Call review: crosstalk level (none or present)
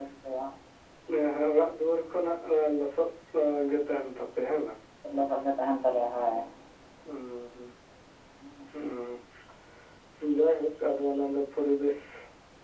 none